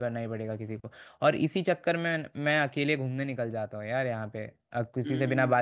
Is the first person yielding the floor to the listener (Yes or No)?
No